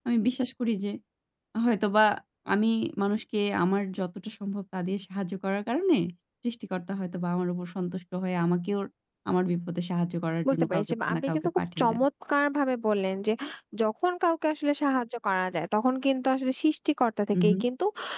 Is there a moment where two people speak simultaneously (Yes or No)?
Yes